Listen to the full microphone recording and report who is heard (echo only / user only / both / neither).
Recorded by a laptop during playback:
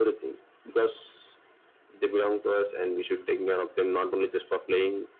echo only